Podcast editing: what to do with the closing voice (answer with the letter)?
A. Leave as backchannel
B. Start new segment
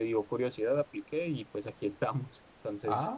B